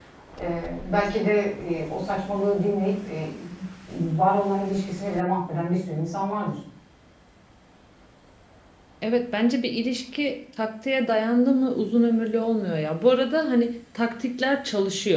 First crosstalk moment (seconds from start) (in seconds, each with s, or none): none